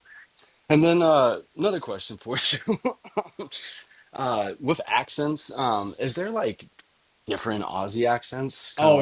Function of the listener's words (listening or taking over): taking over